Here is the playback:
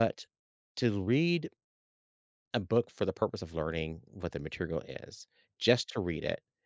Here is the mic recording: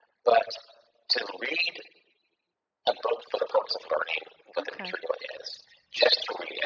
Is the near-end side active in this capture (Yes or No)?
Yes